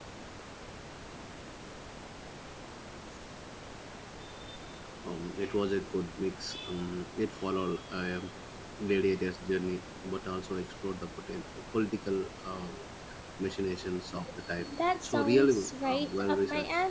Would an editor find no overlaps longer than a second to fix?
No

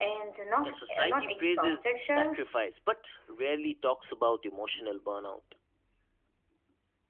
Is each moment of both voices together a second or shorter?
No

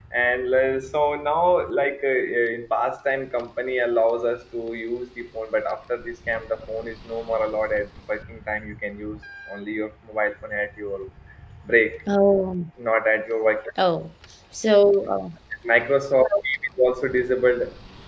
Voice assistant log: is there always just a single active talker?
Yes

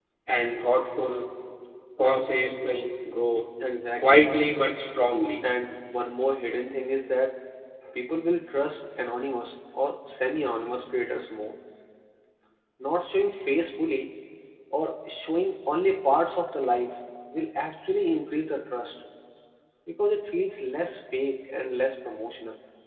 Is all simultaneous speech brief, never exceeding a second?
Yes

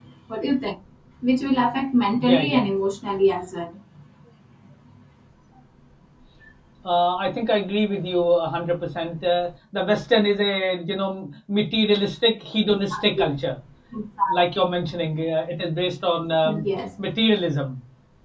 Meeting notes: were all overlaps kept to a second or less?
Yes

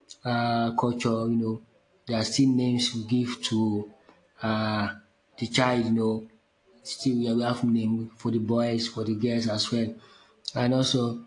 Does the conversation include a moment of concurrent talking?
No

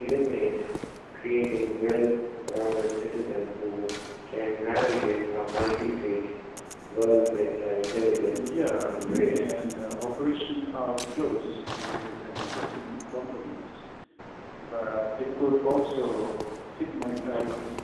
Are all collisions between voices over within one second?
No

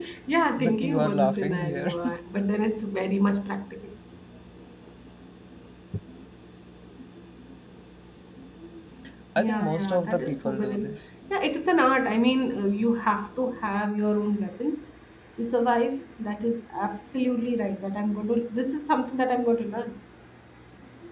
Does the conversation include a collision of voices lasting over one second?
Yes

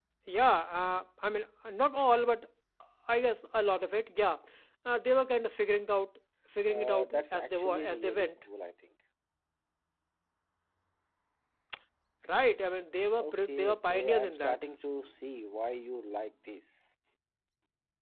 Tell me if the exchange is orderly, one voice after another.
No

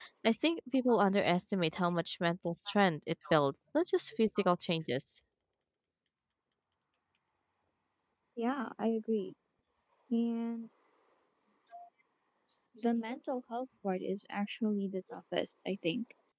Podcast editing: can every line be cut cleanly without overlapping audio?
Yes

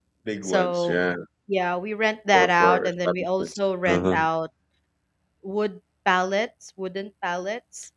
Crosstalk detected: Yes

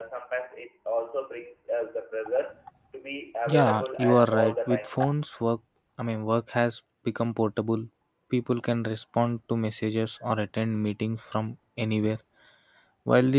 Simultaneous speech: Yes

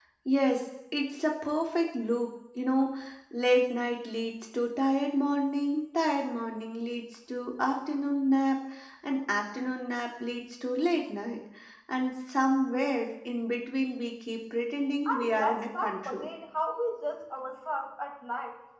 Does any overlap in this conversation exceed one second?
Yes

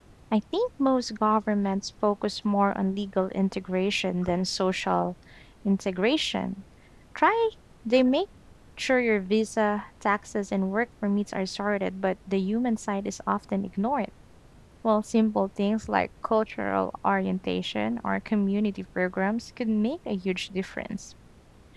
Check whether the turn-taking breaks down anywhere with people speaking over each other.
No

